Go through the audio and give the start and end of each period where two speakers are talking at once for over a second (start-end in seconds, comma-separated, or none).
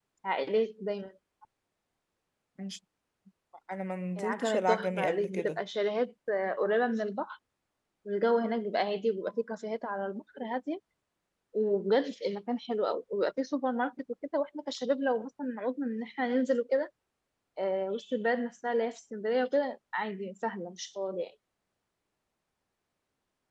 4.2-5.6